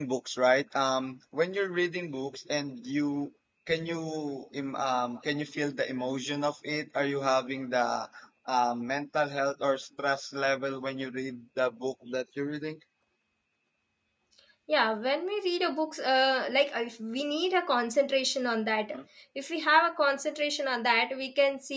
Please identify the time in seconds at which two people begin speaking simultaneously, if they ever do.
none

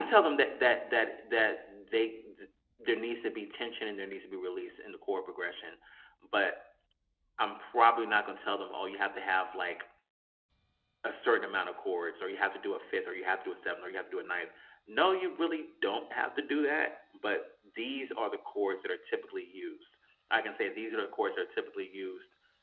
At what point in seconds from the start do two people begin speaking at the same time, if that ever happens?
none

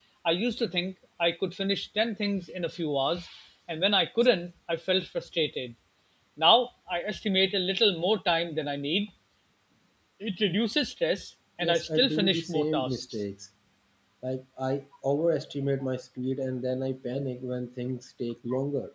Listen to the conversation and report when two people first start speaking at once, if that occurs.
11.6 s

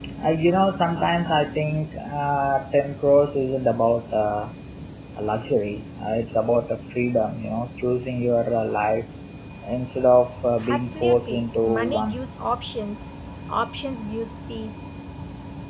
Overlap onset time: 10.6 s

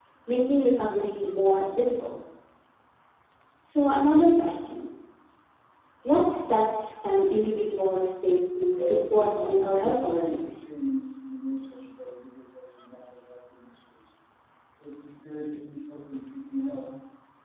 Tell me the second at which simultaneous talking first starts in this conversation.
8.8 s

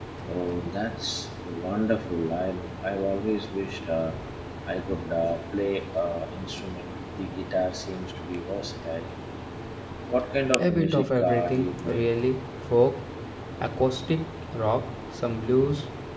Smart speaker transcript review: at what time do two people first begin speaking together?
10.6 s

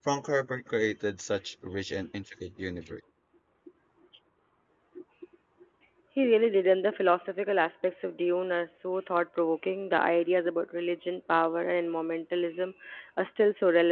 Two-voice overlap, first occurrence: none

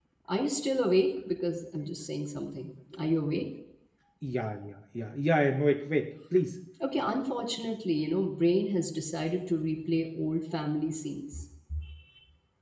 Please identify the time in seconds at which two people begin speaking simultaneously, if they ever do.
none

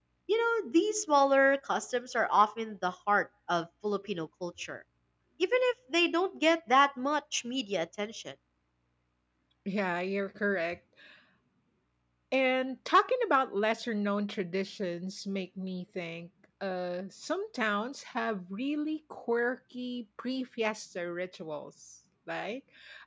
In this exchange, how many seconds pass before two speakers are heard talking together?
none

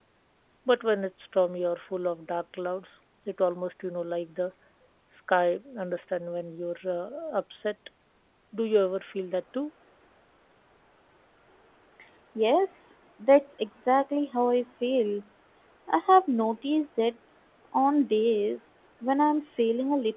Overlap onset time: none

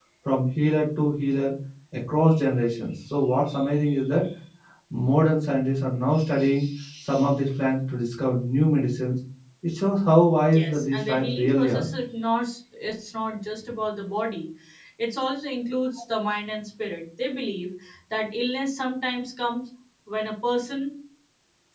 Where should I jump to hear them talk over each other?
10.5 s

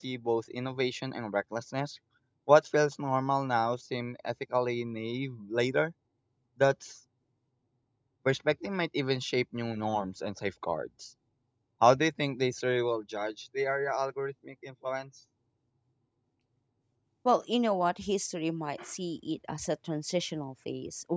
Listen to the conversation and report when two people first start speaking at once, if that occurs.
none

